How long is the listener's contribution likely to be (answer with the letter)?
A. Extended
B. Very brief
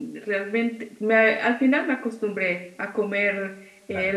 B